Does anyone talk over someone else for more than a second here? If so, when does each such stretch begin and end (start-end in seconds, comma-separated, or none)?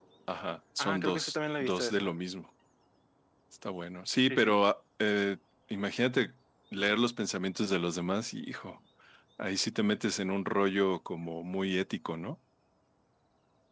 0.8-2.1